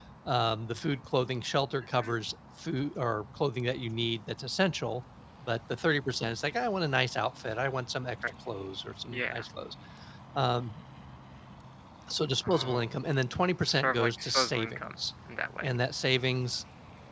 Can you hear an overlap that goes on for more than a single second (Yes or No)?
Yes